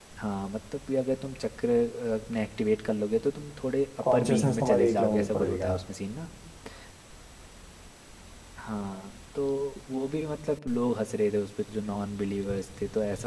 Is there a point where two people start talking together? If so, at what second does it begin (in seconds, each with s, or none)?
4.0 s